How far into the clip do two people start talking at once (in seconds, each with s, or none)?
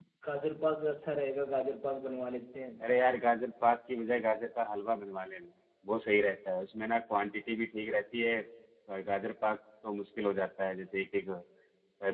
none